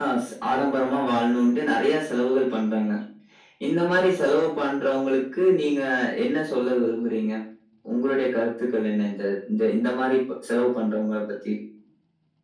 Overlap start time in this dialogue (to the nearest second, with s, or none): none